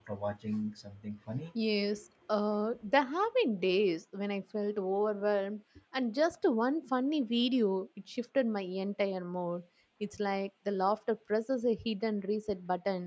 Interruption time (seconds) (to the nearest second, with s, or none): none